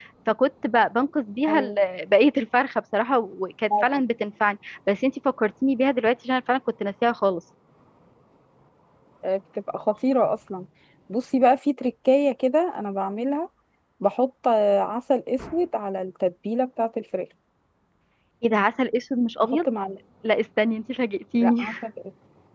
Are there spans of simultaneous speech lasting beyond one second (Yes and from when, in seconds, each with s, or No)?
No